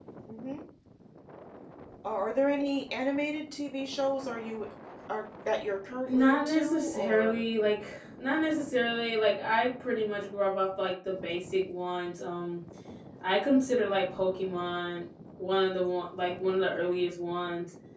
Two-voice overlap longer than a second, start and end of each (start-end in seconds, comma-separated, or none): 6.1-7.4